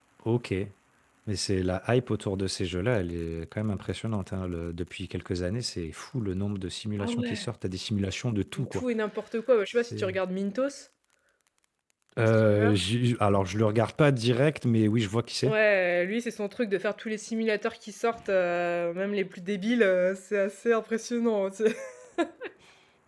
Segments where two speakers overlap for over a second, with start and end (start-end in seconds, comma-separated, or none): none